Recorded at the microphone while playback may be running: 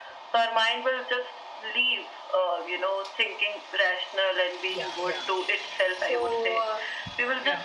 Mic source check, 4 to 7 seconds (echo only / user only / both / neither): both